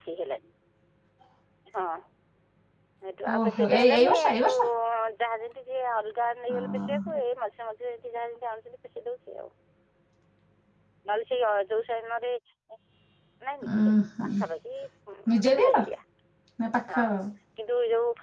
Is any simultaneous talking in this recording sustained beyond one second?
Yes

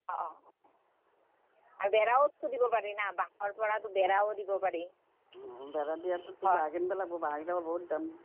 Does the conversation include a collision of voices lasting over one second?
No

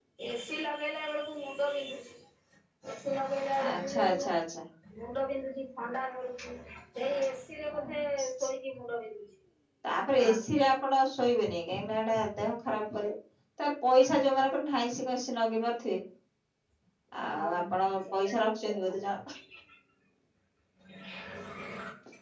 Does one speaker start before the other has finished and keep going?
Yes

